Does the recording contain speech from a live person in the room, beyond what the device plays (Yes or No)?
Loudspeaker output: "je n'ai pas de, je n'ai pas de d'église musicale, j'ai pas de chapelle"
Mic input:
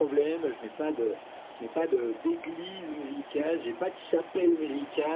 No